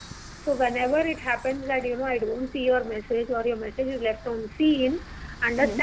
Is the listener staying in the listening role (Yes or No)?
Yes